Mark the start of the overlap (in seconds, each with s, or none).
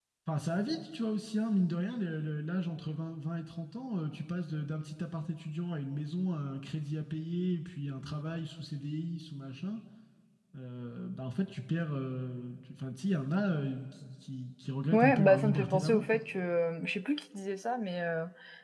14.9 s